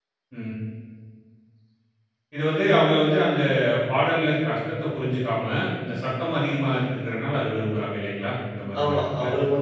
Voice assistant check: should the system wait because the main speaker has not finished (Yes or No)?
No